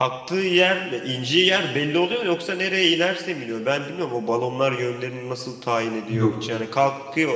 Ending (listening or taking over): listening